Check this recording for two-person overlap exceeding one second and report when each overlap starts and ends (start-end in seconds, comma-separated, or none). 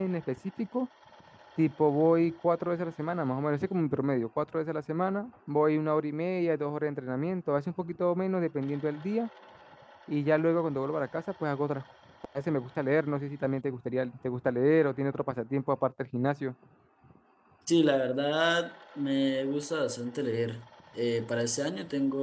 none